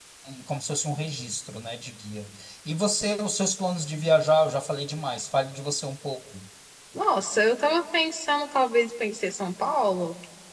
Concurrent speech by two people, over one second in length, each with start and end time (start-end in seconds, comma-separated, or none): none